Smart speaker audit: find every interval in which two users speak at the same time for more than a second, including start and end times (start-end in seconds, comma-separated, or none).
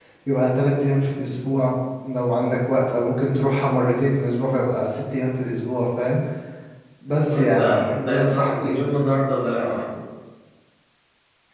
7.3-8.8